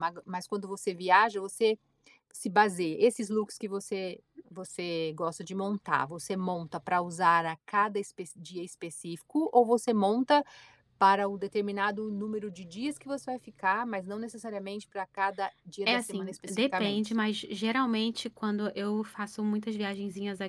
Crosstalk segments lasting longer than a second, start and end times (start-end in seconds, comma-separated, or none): 15.9-17.1